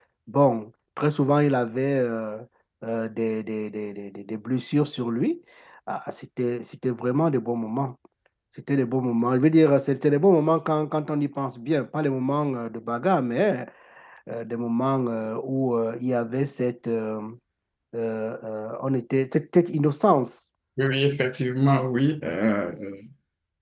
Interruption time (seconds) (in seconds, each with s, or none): none